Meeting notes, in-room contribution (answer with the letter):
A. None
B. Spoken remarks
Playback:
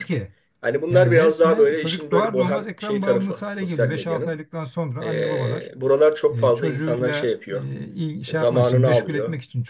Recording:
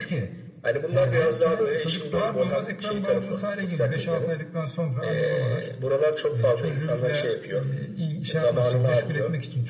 A